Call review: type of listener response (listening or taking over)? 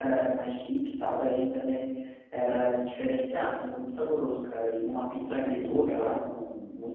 listening